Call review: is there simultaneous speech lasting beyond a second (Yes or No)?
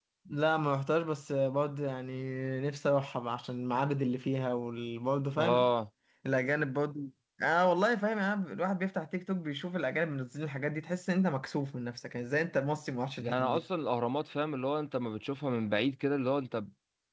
No